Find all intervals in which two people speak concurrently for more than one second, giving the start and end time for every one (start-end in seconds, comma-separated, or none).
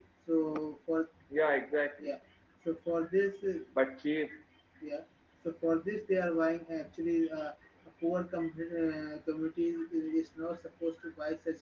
none